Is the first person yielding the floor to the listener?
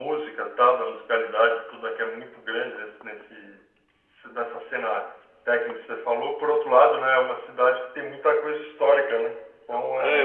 Yes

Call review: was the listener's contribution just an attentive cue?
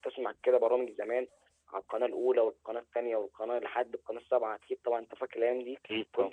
Yes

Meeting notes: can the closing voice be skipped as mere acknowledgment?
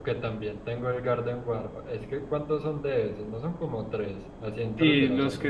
No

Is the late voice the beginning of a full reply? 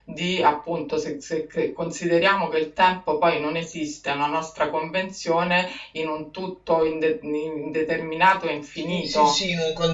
Yes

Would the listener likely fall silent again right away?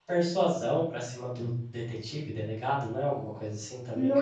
No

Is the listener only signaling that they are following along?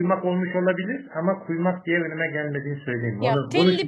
No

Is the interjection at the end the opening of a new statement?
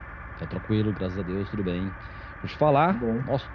No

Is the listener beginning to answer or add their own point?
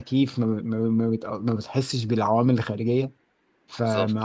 No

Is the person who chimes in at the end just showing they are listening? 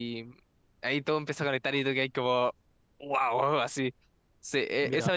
Yes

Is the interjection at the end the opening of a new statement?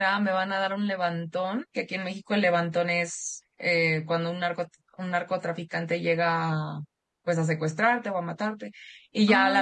No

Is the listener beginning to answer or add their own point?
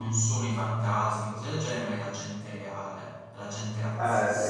Yes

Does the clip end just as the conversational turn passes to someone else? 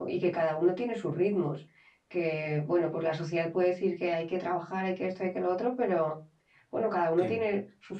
No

